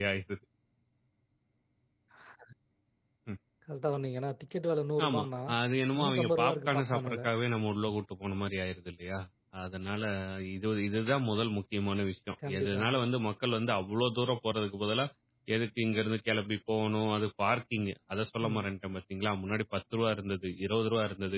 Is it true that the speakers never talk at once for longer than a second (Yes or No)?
No